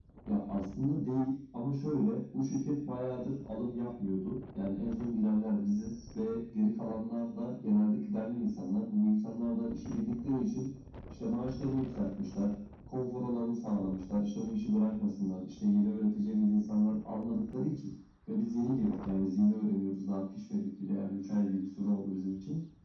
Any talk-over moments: No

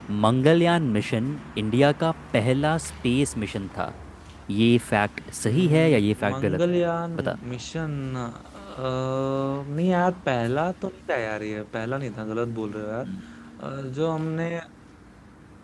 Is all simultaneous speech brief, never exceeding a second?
No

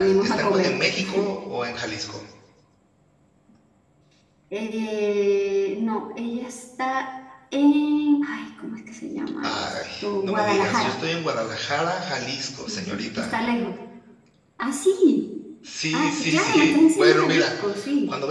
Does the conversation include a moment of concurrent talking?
Yes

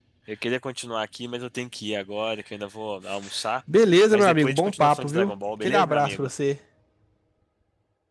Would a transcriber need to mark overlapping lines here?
Yes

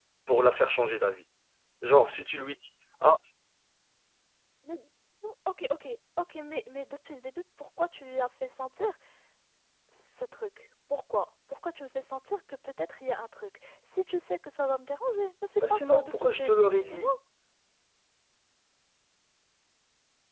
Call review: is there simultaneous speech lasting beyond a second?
Yes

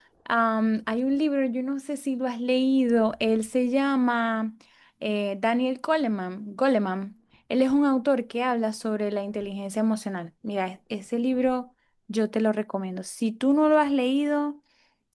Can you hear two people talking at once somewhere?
No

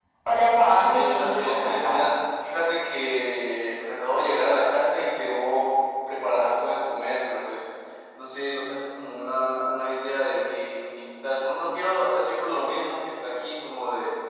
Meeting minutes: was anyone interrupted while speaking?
Yes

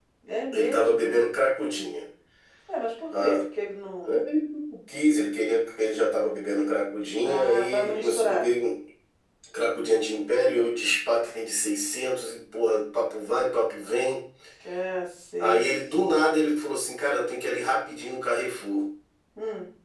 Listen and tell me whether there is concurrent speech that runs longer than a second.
Yes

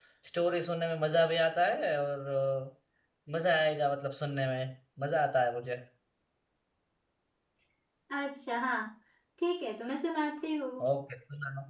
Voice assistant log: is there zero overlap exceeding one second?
Yes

